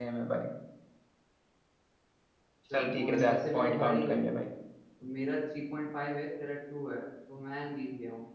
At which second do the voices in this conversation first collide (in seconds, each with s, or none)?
2.7 s